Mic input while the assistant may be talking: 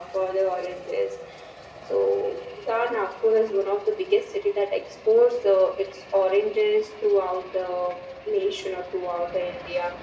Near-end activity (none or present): none